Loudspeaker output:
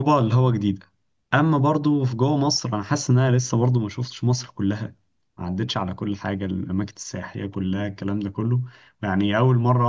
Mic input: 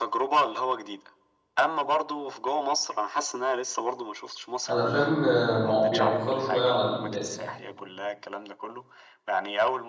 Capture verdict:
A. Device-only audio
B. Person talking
B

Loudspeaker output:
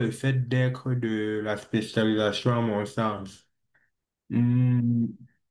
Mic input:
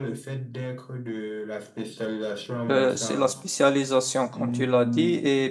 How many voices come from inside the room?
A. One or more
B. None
A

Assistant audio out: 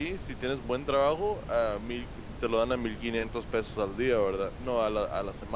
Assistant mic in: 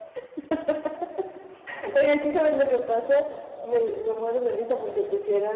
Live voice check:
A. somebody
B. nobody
A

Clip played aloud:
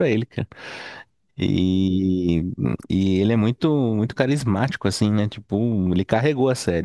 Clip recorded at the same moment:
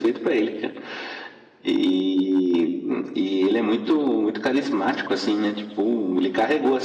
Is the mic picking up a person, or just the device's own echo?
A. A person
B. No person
B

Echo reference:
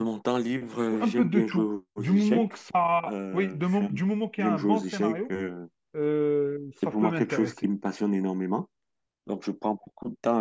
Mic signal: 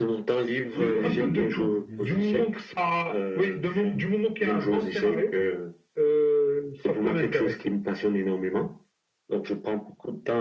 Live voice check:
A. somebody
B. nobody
A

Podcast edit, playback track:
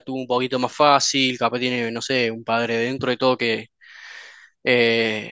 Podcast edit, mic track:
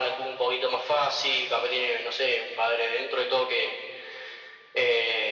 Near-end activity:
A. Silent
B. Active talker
A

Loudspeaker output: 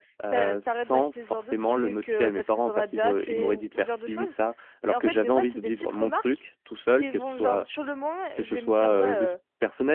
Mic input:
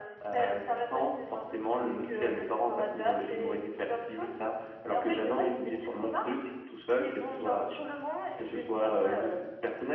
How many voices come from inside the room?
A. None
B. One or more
A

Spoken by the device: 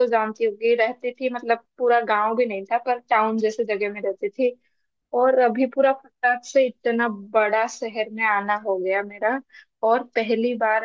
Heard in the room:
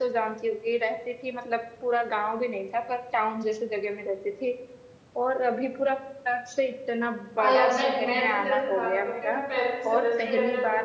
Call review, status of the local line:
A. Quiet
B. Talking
B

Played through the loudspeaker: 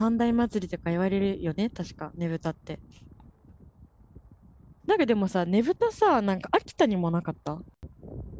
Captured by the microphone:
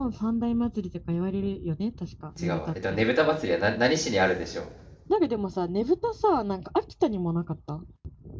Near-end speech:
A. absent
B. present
B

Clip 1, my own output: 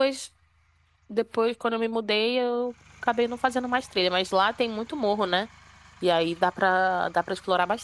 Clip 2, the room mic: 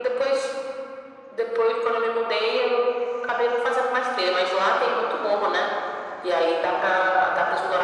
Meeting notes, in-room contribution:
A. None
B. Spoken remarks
A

